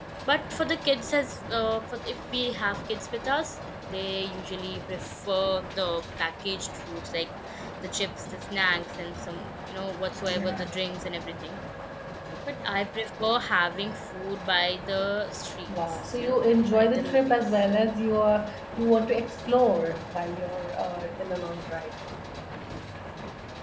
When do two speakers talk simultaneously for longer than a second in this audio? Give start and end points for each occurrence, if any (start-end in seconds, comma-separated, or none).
15.7-17.6